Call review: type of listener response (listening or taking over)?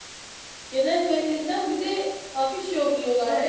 taking over